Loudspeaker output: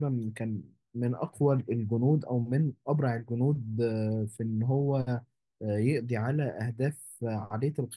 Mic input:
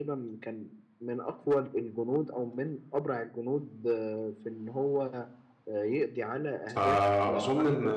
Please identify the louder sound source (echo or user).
user